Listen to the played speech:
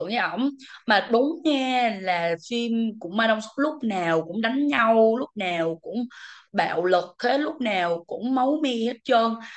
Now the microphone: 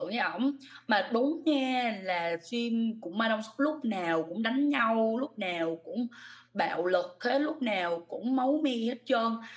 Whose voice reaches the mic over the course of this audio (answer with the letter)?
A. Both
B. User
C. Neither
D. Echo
D